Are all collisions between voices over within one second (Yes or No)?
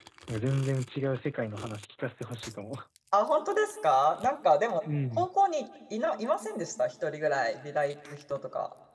Yes